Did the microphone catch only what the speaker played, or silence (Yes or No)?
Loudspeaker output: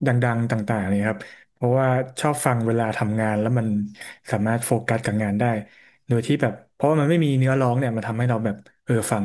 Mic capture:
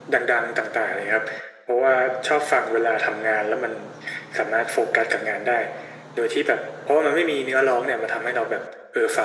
Yes